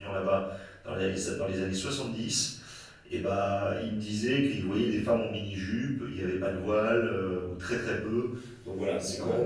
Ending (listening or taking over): taking over